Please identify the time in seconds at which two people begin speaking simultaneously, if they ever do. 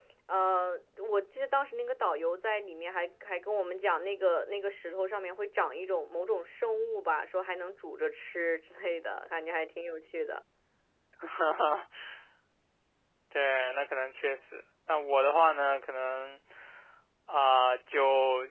none

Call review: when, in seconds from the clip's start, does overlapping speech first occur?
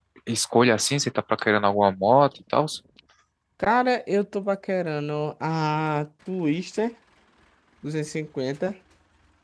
none

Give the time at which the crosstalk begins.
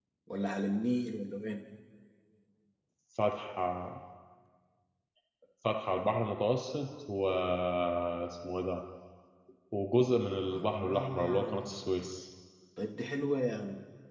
10.5 s

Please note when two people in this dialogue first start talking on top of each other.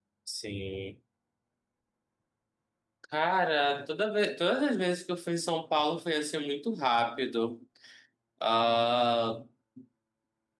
none

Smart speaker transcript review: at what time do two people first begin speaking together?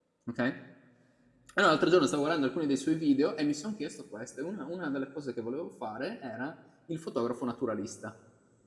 none

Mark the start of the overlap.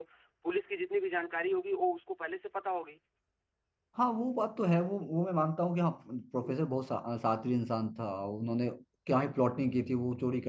none

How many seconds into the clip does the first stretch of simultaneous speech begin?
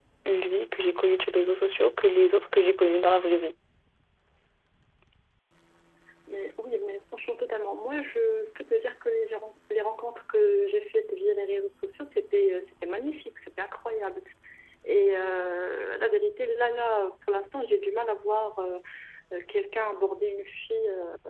none

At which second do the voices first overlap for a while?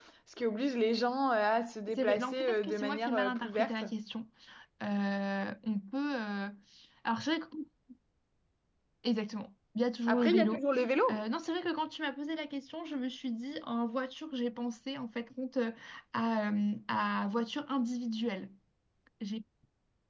1.9 s

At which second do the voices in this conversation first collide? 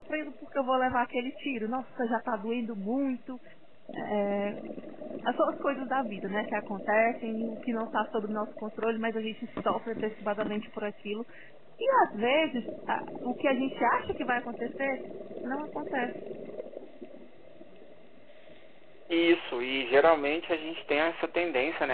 none

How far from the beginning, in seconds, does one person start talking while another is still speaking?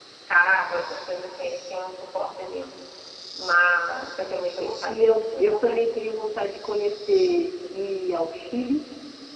4.6 s

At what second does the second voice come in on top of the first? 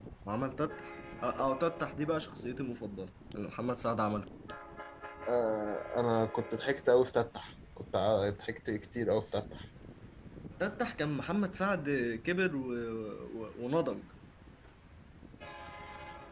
none

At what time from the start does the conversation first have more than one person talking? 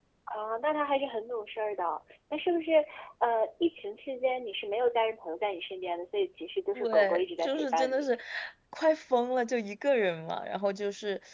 6.8 s

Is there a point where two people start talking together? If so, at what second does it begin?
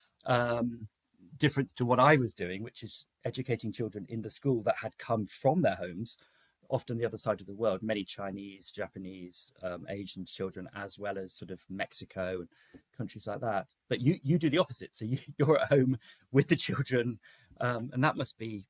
none

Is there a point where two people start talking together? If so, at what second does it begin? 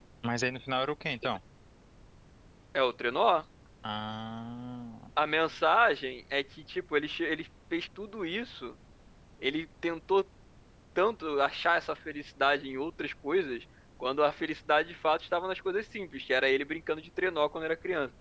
none

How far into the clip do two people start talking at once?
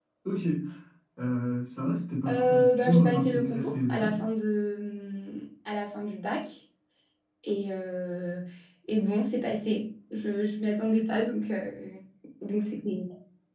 2.3 s

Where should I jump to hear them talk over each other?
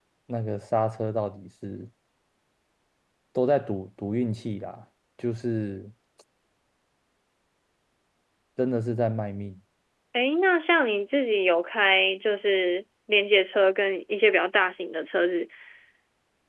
none

